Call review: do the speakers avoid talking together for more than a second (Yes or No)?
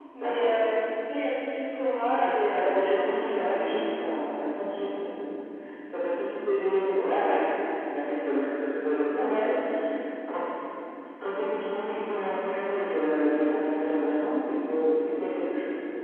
No